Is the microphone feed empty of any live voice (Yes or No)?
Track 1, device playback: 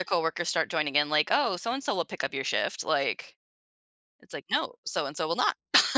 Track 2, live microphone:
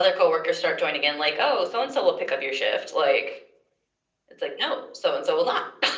Yes